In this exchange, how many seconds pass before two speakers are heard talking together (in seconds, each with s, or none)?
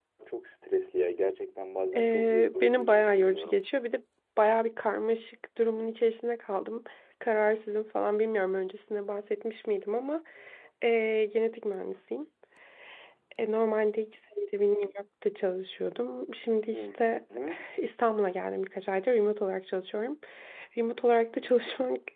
2.0 s